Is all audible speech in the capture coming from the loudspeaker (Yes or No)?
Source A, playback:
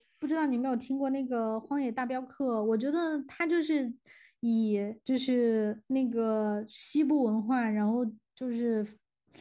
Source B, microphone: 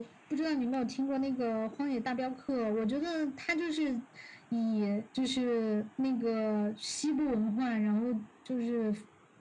Yes